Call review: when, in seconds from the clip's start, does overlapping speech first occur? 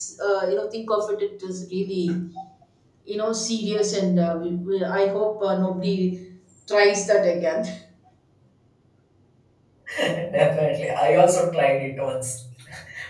none

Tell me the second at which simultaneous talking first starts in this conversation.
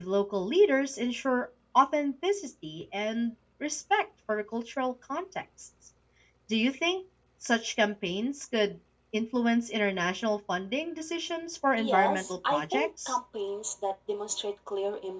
11.8 s

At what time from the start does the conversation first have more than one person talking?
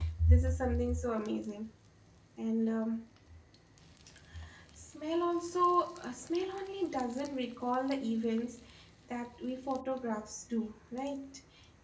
none

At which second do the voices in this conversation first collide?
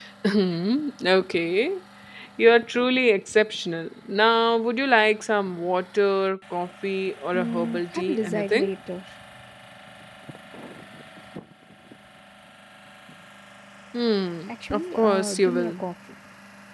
7.3 s

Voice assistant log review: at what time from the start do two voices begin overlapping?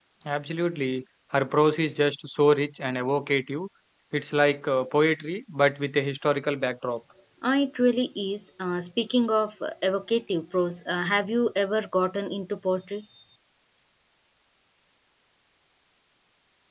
none

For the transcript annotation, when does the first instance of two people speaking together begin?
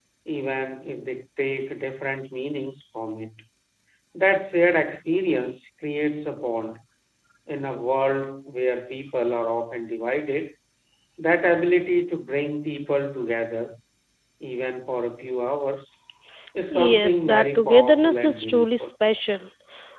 16.7 s

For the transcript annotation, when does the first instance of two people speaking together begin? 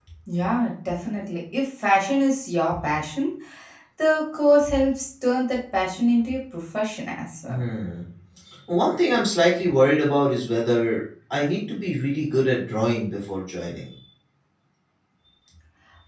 none

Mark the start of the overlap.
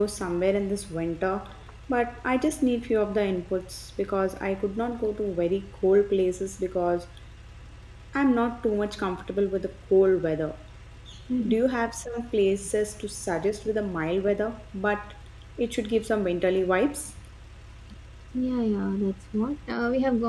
none

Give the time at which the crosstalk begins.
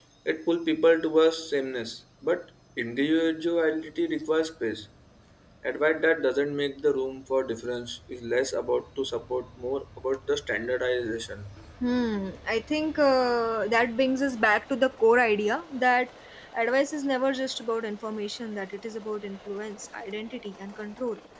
none

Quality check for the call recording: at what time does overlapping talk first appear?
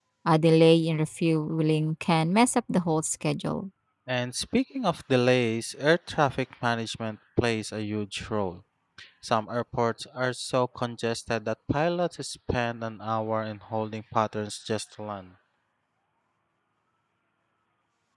none

